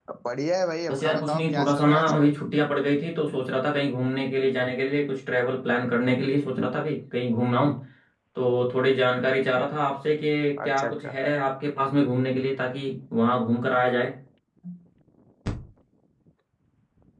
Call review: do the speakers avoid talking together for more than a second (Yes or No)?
No